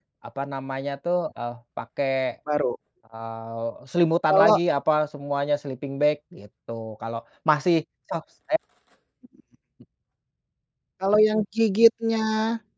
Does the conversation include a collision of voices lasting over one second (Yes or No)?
No